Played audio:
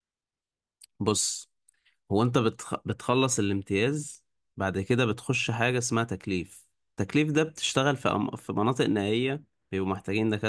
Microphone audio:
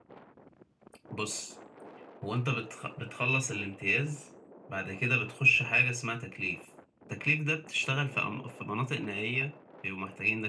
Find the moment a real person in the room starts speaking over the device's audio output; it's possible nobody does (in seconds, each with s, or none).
none